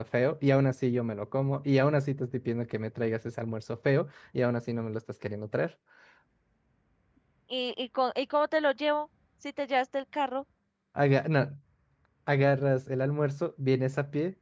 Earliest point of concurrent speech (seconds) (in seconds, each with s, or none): none